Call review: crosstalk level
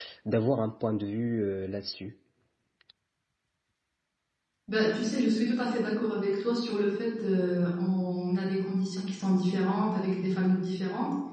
none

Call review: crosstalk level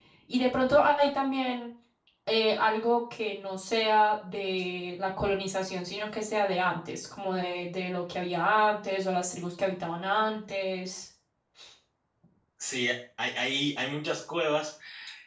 none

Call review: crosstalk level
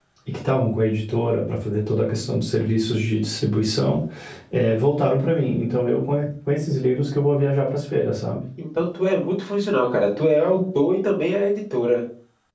none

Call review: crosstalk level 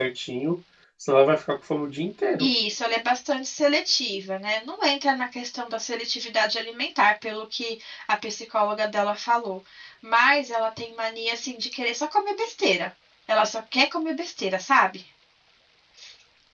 none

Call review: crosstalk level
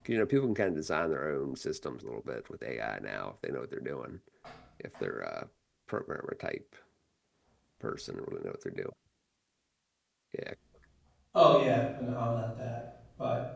none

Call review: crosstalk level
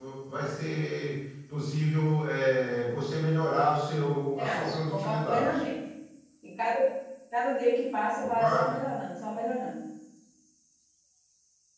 present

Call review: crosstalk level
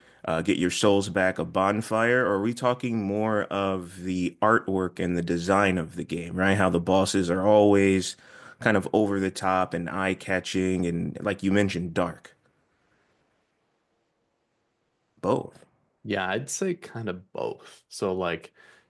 none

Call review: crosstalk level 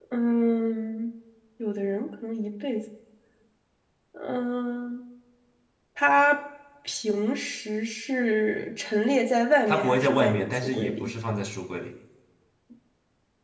present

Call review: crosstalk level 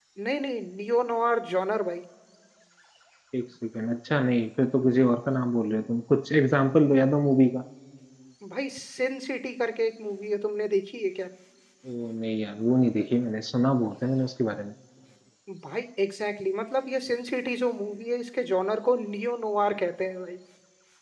none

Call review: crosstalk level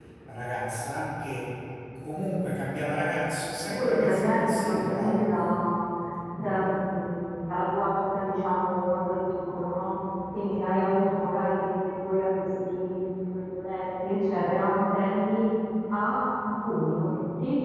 present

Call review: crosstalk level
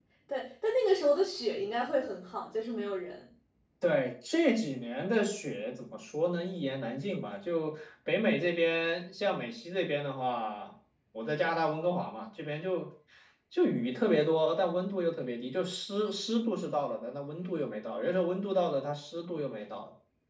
none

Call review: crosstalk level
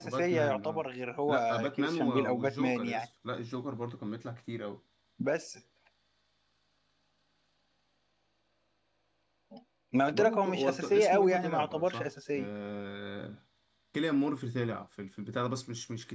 present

